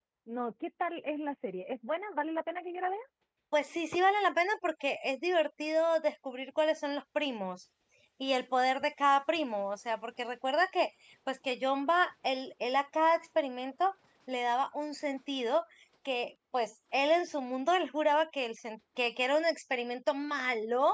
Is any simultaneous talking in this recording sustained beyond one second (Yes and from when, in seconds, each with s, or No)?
No